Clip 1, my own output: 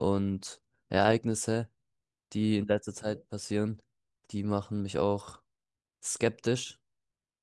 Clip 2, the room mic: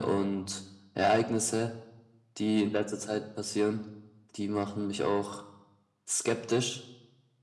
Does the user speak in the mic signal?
No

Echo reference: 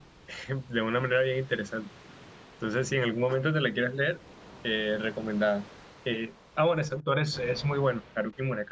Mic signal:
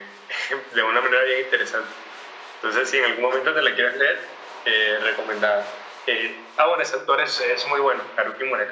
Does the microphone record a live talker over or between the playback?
No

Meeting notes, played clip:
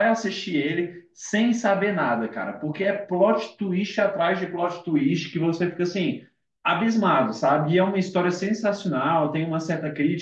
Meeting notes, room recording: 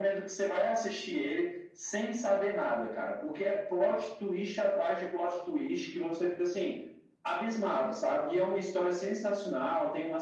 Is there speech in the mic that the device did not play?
No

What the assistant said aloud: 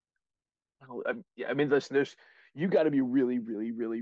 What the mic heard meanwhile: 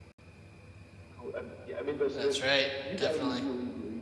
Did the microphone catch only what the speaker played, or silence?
No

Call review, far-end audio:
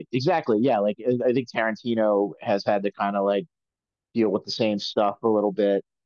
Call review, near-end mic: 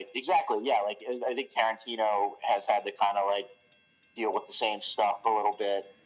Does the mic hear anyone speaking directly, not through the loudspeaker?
No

